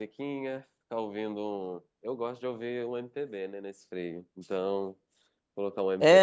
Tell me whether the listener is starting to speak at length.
Yes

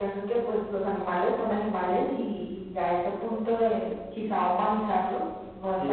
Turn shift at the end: Yes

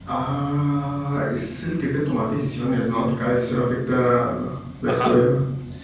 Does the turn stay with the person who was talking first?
No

